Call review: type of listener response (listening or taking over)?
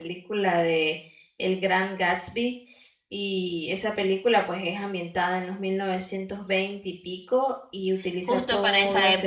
taking over